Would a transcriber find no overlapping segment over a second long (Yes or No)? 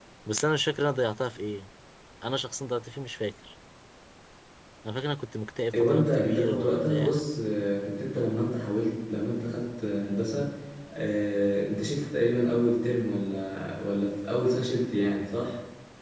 No